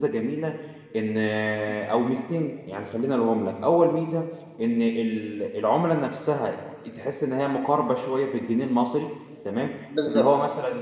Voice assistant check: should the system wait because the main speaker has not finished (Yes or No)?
Yes